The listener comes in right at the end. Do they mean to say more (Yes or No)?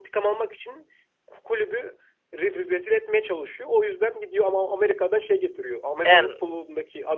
No